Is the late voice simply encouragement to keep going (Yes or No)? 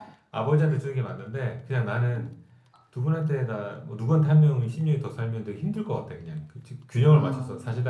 Yes